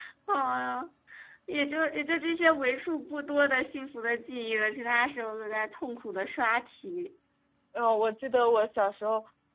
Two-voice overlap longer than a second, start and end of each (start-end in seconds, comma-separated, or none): none